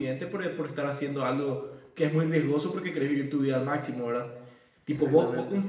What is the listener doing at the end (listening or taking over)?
listening